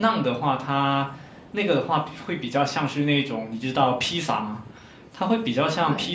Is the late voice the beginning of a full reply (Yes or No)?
No